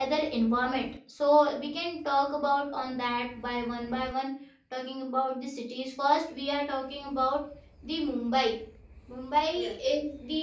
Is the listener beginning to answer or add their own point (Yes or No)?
No